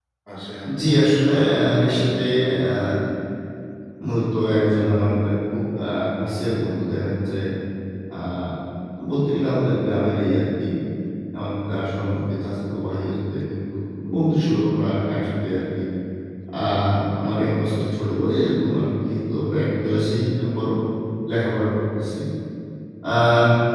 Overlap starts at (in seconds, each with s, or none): 0.8 s